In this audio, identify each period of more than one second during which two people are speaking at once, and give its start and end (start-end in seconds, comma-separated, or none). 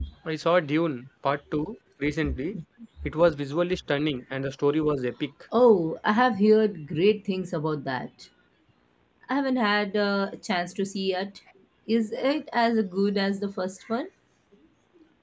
none